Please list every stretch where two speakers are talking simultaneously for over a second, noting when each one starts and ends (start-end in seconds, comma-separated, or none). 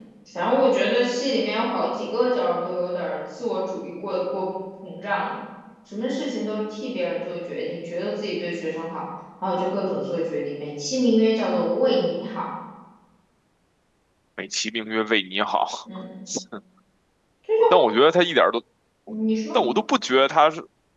none